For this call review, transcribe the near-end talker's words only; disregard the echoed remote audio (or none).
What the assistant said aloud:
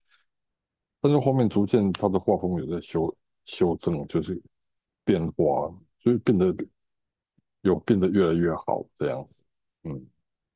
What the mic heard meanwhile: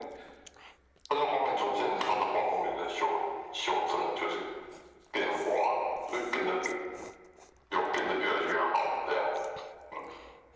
none